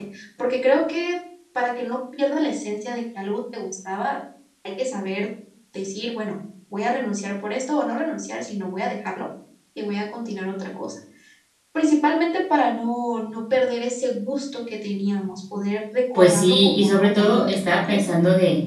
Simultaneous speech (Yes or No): Yes